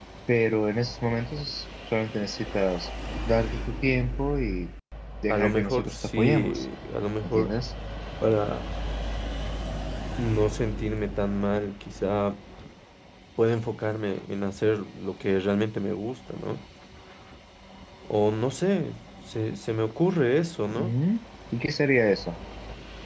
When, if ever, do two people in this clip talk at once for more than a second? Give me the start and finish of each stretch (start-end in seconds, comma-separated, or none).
5.3-6.6